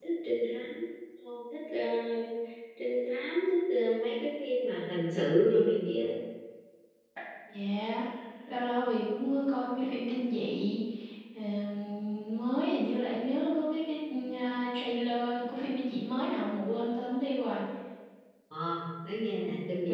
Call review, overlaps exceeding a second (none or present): none